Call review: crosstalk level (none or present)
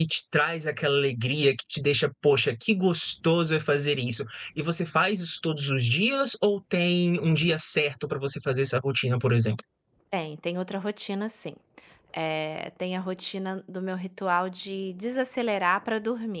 none